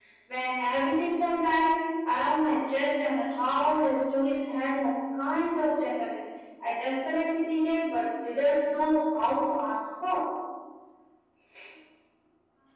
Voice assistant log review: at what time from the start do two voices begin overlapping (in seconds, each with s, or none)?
none